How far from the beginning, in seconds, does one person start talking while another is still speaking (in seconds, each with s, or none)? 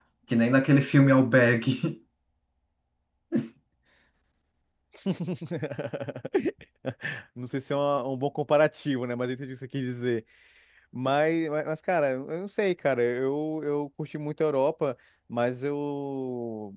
none